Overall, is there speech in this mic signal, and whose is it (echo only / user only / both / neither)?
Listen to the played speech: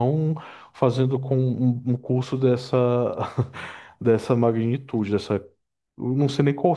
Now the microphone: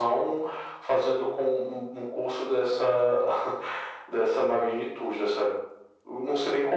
echo only